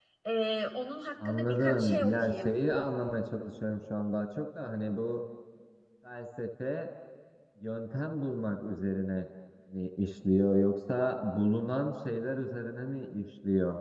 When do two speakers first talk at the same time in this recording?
1 s

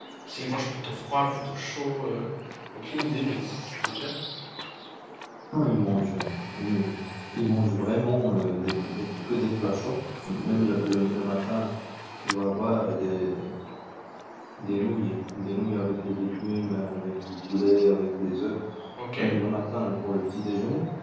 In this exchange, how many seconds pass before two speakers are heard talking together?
none

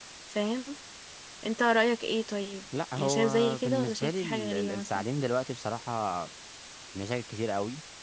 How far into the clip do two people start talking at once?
3 s

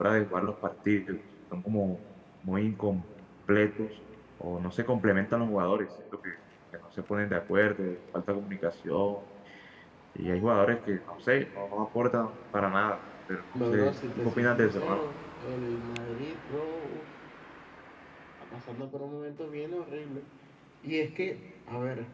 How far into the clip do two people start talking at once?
14 s

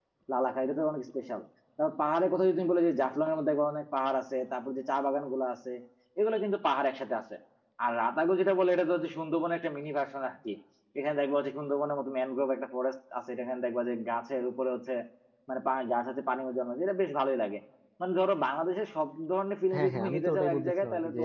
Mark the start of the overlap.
20 s

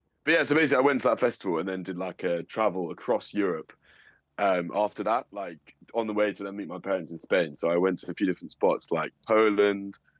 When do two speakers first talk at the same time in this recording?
none

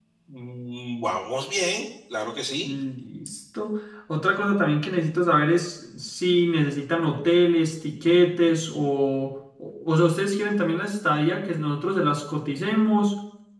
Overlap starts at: none

